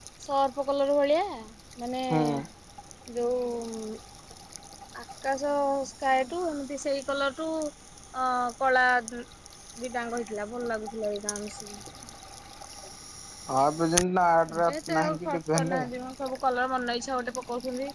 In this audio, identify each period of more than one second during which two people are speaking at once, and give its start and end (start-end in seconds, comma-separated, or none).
14.5-15.9